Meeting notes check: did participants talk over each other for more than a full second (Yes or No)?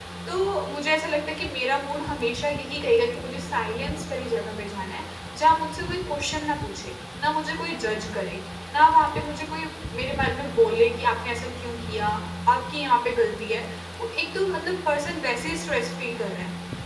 No